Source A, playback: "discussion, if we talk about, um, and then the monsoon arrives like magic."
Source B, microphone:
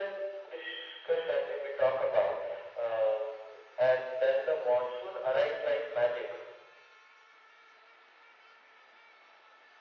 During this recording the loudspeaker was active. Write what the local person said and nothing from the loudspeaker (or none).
none